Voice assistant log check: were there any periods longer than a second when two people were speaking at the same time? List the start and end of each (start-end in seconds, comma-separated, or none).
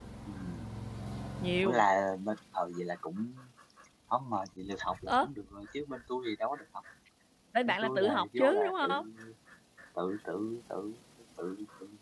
7.7-9.0